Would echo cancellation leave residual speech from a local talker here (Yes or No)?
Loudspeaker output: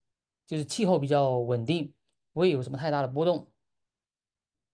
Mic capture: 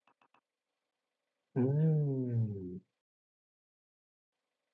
Yes